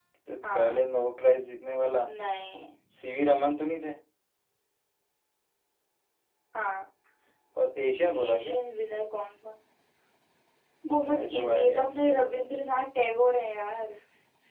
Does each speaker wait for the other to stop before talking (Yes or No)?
No